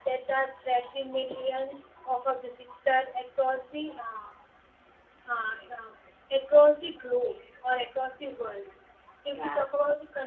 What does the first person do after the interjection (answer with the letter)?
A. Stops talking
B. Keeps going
B